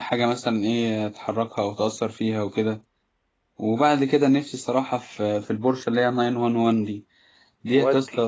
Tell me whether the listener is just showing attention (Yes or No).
Yes